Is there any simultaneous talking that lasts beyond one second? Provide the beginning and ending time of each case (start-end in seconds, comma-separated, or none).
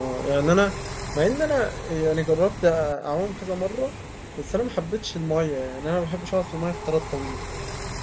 none